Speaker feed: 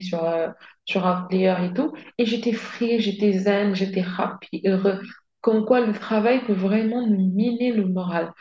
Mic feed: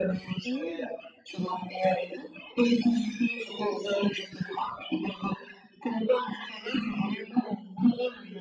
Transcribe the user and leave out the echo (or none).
Mmh,